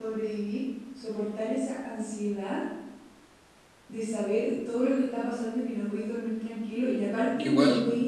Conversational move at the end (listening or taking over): listening